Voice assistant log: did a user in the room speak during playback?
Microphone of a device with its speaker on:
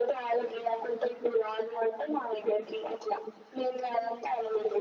No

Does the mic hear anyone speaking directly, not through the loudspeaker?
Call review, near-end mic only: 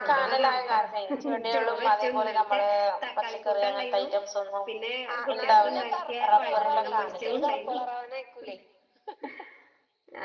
Yes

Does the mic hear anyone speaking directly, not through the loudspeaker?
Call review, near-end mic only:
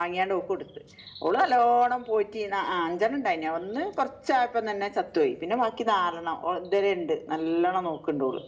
Yes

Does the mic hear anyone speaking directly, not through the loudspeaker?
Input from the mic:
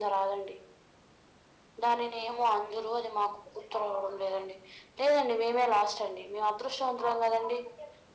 No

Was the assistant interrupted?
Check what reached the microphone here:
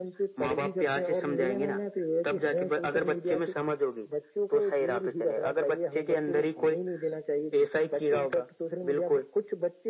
No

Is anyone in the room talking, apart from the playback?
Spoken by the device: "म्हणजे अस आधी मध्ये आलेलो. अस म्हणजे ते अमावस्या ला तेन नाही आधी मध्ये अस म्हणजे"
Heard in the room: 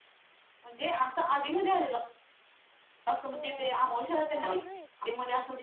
Yes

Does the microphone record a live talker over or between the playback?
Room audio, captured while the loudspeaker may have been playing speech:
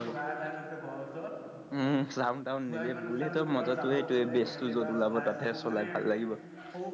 Yes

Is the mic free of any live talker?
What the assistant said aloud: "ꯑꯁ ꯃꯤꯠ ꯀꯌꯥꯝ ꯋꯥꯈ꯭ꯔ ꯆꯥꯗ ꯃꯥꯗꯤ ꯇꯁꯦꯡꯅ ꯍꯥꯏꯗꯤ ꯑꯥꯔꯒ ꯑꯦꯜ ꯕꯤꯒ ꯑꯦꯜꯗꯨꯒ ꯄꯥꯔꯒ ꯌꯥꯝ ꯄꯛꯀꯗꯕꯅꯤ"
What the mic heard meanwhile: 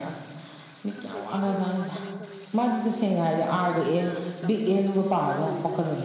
No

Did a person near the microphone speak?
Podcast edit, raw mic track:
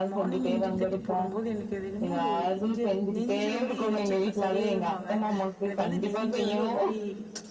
Yes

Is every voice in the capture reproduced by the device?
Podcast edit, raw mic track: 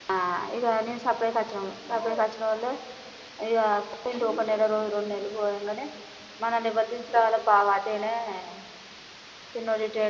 No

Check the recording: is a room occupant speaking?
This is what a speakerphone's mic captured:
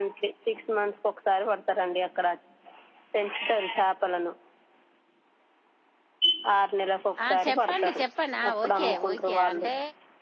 Yes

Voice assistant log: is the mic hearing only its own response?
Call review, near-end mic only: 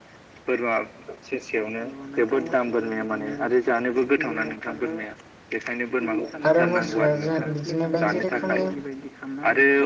No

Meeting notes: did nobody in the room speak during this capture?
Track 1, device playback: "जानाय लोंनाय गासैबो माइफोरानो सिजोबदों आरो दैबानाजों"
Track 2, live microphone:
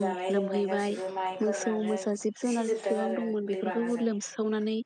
No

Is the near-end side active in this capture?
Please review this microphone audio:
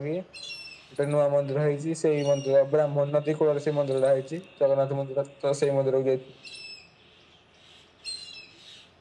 No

